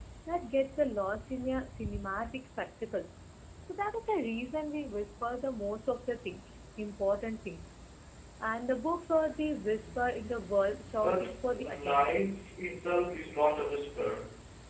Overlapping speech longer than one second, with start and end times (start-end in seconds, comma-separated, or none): 11.0-12.3